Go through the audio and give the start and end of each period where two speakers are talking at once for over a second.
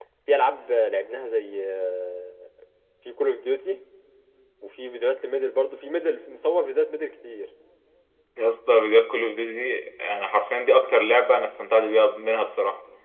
none

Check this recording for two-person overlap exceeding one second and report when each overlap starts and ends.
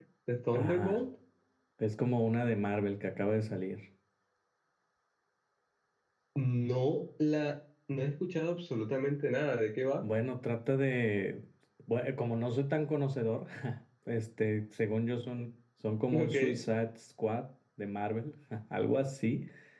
none

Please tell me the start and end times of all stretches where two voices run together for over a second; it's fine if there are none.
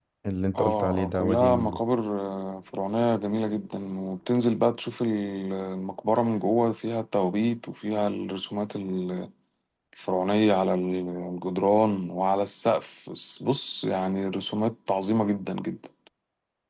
0.5-1.8

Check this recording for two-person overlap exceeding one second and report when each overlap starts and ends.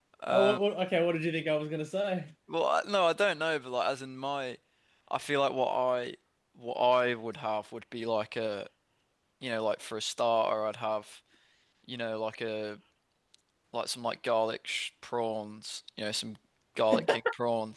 none

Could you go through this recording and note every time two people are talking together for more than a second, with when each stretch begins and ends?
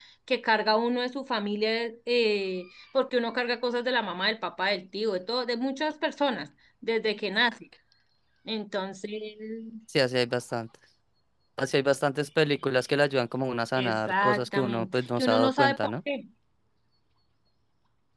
13.8-15.9

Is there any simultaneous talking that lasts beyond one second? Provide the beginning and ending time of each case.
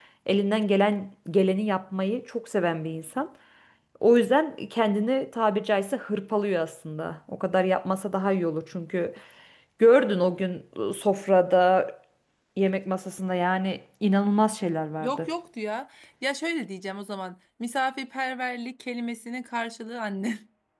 none

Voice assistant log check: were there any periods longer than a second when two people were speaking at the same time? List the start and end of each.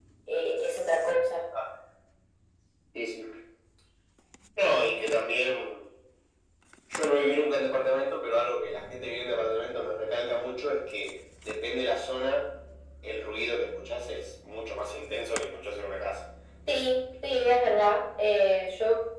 none

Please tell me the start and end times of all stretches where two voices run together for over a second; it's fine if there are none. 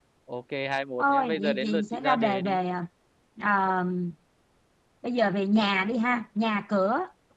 1.0-2.6

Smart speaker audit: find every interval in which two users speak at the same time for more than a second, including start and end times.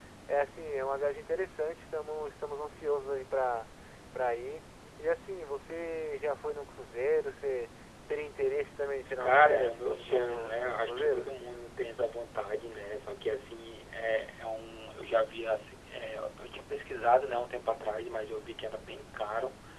9.2-11.3

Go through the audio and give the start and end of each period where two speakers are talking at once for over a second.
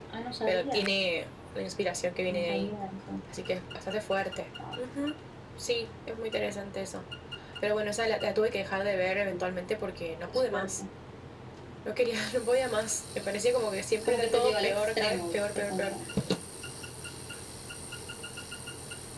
14.1-15.9

